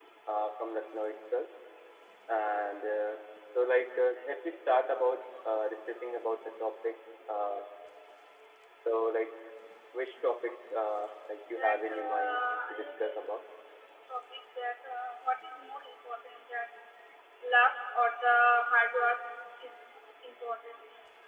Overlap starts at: 11 s

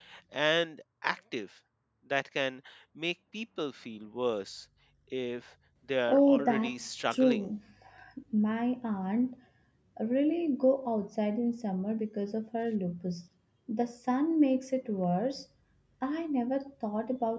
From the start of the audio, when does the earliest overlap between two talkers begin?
6 s

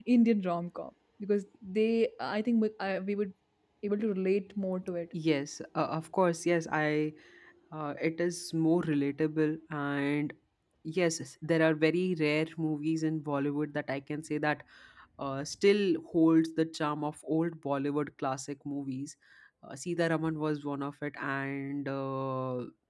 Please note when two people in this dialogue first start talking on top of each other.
none

